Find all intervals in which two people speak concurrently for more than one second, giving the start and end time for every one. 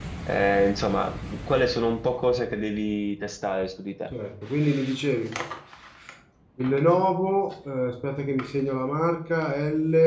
none

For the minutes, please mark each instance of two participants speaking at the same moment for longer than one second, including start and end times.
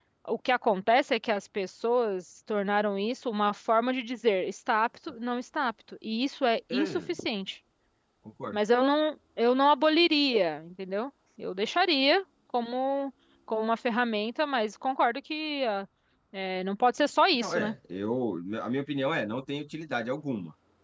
none

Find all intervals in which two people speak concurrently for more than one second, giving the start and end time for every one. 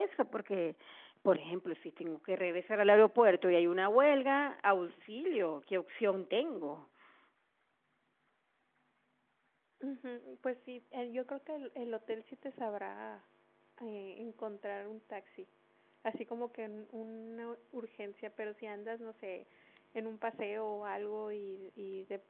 none

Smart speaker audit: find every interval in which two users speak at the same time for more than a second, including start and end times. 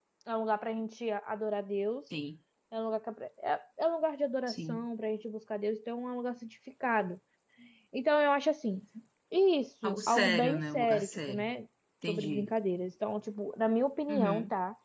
9.8-11.5

